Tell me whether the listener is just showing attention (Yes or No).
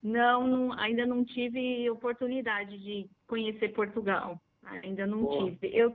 Yes